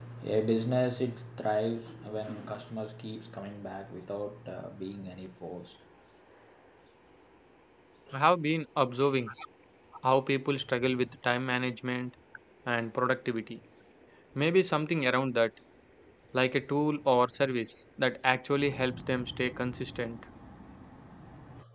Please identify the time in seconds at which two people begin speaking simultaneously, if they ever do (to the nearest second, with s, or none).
none